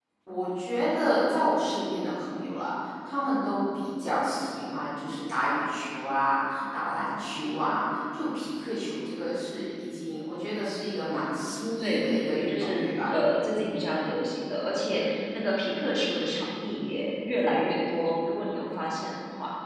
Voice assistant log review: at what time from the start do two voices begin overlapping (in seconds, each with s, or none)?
11.8 s